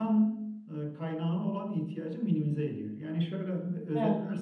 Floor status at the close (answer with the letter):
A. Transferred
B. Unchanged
B